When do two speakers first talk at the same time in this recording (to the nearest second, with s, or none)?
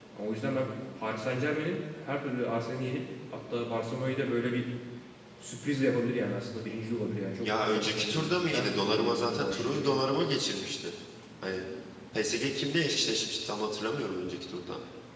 7 s